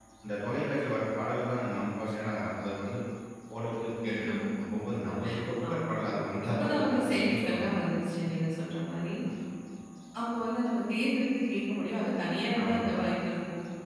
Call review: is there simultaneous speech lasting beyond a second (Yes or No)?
Yes